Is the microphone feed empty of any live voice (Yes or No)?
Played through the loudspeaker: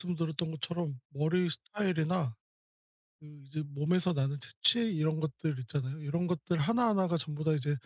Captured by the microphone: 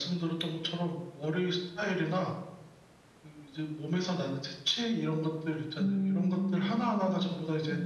No